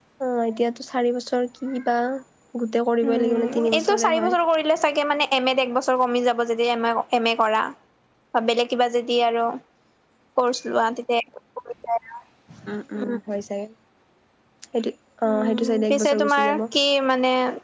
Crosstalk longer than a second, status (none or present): present